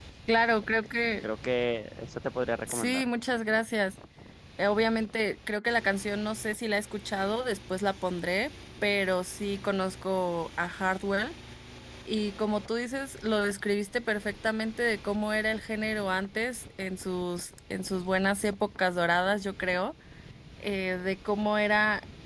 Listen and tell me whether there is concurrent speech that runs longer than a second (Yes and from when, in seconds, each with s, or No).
No